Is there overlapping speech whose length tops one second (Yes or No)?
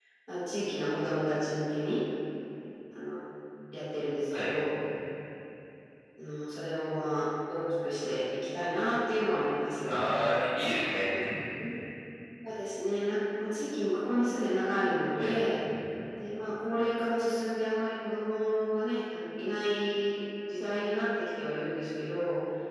No